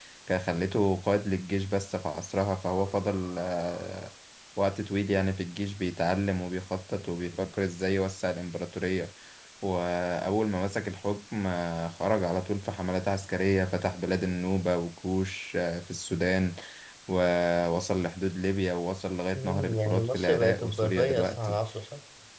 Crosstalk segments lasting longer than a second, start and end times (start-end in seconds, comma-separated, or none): 19.3-21.6